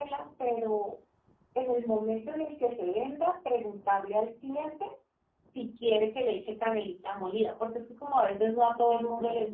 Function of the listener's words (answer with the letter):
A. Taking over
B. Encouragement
A